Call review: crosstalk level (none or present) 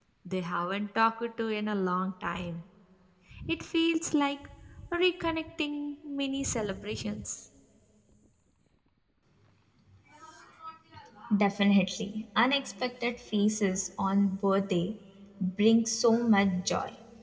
none